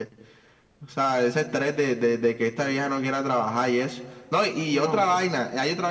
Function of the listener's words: listening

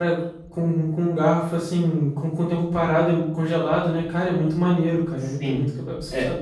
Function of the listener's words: taking over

